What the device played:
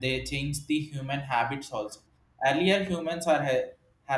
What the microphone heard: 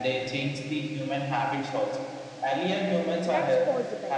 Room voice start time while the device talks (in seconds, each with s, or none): 3.3 s